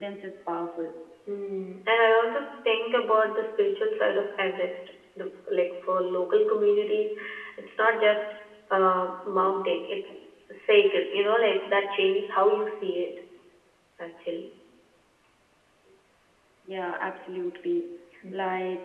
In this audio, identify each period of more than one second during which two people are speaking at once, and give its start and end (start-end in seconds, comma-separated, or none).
none